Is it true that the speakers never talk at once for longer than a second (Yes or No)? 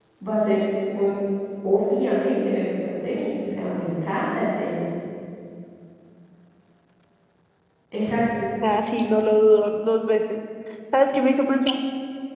Yes